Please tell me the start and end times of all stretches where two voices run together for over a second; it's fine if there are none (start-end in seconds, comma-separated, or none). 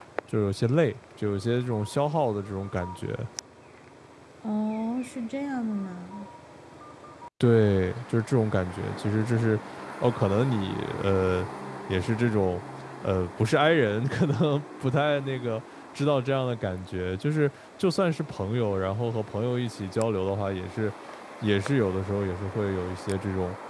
none